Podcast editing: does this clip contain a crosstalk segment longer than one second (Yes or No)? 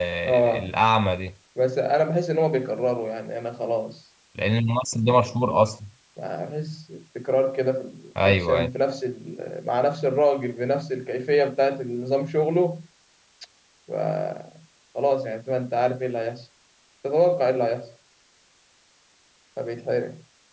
No